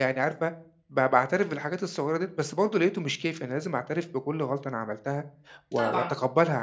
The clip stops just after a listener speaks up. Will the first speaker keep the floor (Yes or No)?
Yes